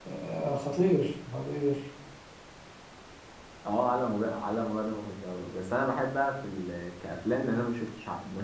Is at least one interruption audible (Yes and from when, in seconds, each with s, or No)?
No